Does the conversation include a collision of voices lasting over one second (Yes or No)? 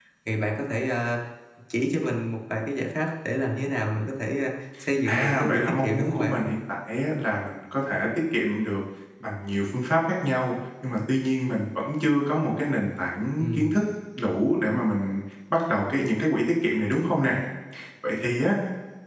Yes